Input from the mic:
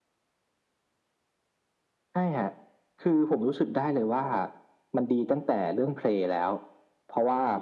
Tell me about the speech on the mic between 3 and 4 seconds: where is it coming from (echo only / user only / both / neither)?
echo only